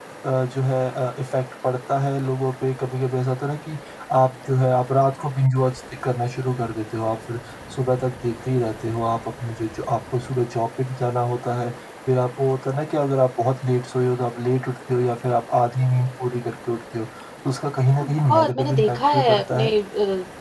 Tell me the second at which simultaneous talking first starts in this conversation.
18.0 s

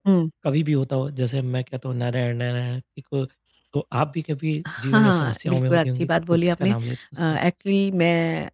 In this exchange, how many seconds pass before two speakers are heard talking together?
4.7 s

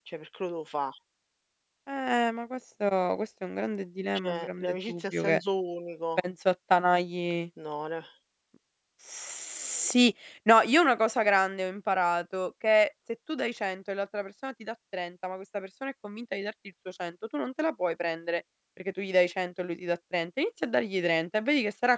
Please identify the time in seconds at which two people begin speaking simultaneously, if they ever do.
4.2 s

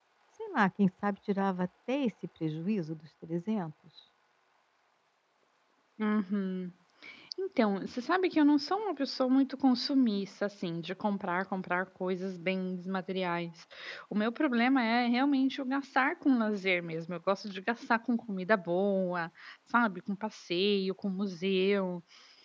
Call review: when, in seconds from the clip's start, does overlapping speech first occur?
none

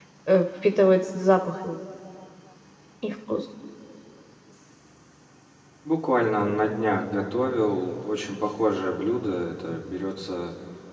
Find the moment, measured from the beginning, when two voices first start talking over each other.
none

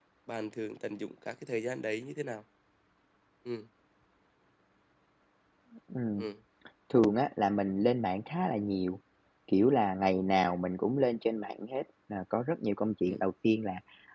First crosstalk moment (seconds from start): none

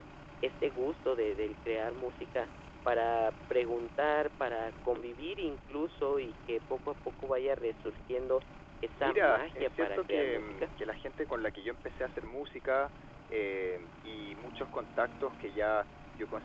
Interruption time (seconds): 8.9 s

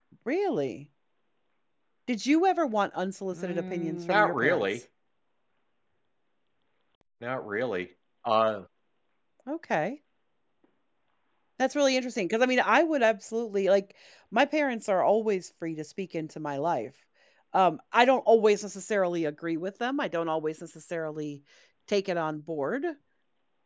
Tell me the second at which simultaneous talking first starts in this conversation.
3.3 s

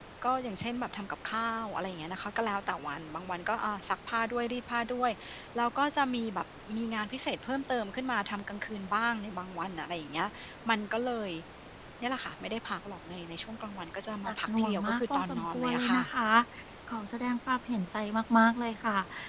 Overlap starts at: 14.3 s

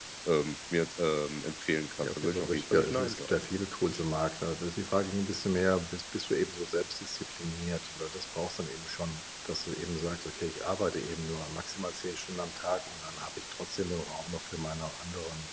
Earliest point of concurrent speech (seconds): 2.0 s

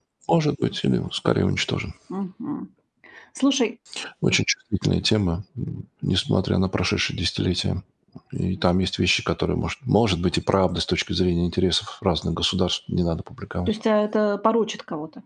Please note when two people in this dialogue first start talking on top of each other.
none

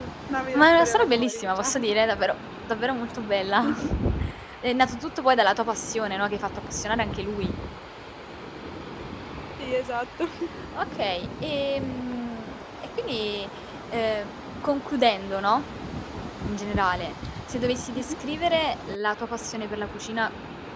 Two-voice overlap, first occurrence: 0.5 s

